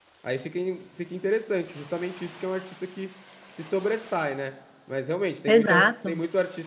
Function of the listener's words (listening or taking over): listening